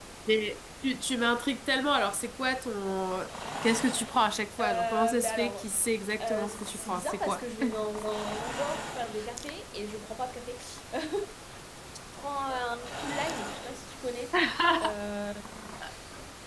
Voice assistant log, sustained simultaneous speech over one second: present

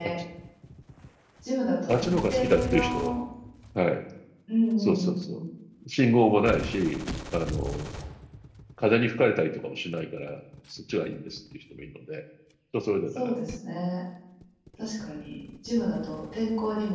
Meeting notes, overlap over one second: present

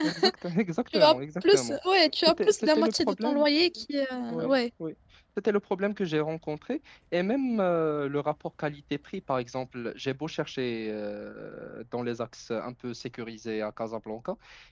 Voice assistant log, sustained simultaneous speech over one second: present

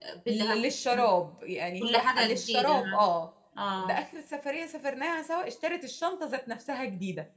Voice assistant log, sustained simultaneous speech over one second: present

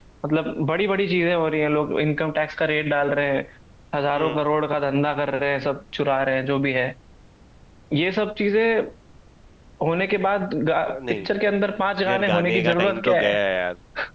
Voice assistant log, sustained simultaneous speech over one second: present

